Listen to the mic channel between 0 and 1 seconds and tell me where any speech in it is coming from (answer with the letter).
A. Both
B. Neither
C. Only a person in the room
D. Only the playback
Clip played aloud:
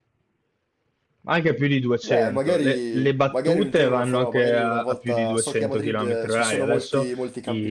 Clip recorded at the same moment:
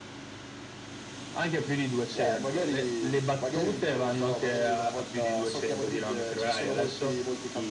B